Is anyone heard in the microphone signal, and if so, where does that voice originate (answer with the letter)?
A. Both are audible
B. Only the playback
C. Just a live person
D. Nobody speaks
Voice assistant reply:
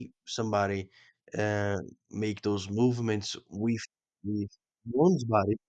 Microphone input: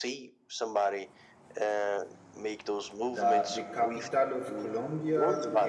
A